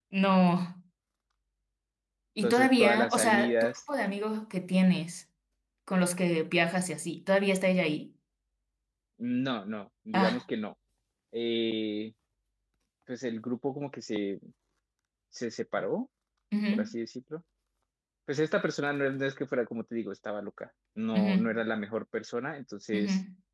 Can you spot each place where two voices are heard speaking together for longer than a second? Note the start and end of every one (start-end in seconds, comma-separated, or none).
2.4-3.7